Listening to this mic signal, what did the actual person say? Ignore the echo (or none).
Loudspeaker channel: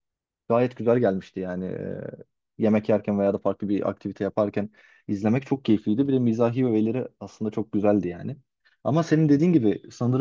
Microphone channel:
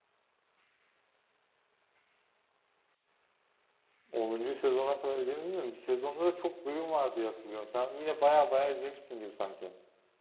onuncu sezona kadar izlemedin mi? Bir sezonda da çok bölüm var diye hatırlıyorum. Sen yine bayağı bayağı izlemişsin gibi sanki.